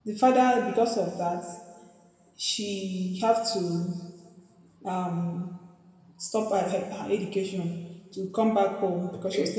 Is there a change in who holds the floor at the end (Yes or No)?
No